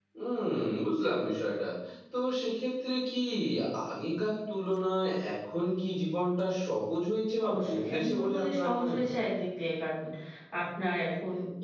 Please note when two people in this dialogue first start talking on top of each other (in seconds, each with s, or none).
7.4 s